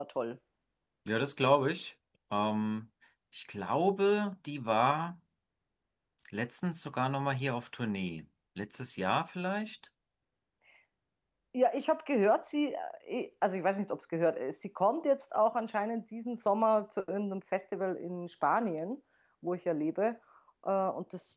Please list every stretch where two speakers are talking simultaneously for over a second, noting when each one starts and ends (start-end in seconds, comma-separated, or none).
none